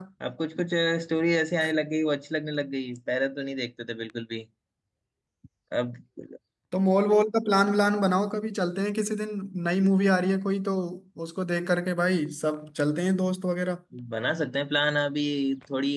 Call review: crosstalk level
none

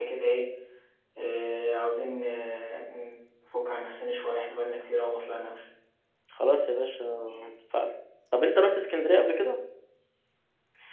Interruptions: none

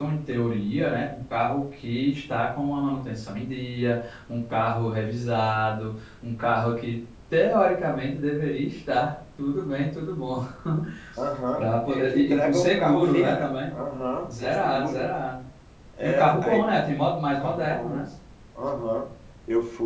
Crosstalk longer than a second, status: present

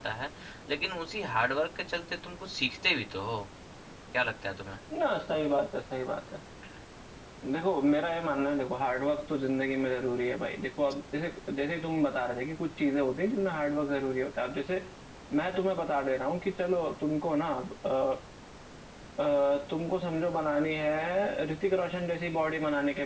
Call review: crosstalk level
none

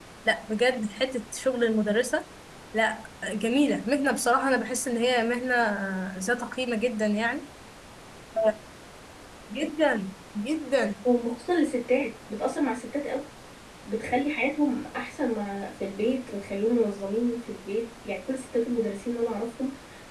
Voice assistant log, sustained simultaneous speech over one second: none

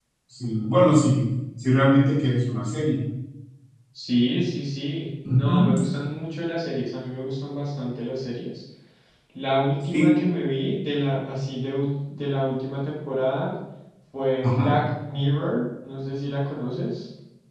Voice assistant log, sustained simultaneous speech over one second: none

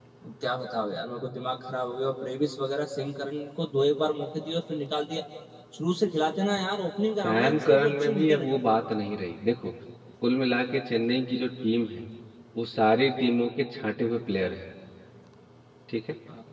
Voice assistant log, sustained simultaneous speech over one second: present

